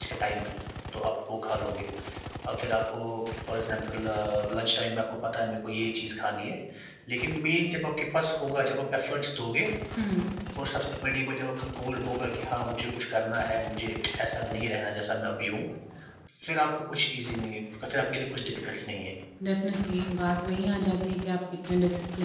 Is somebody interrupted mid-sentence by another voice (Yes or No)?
No